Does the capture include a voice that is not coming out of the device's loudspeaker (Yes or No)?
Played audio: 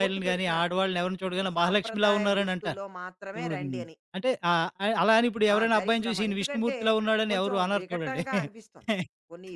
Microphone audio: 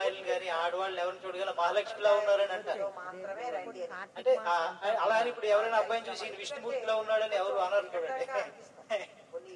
Yes